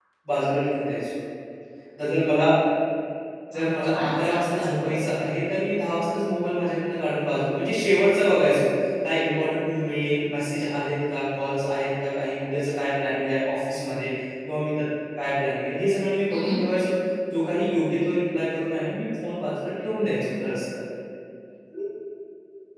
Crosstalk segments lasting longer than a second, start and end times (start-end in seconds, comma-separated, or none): 3.6-5.0